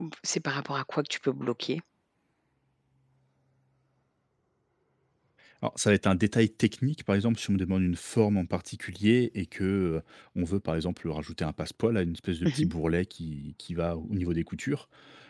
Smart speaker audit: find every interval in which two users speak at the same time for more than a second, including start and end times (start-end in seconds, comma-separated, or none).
none